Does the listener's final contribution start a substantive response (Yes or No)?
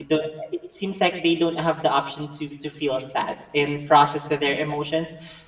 No